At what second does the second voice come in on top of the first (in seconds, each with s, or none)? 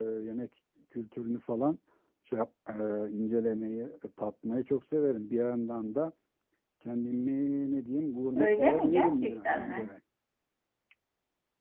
8.4 s